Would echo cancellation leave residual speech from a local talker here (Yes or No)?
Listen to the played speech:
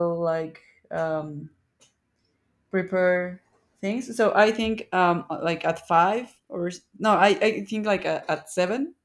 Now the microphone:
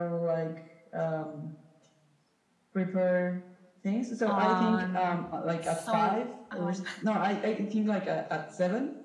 Yes